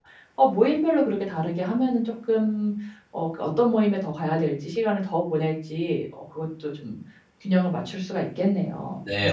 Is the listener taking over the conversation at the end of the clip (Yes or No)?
Yes